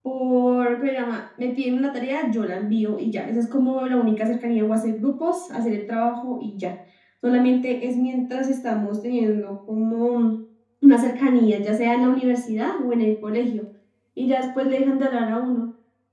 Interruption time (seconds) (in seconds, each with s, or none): none